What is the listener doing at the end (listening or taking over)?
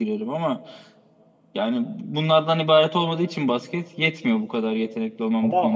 taking over